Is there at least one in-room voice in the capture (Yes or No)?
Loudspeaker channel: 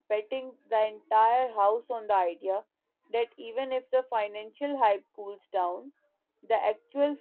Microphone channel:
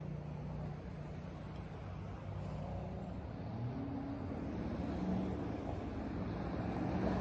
No